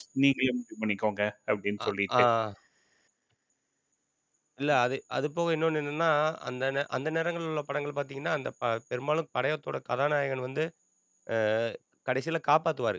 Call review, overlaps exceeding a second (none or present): none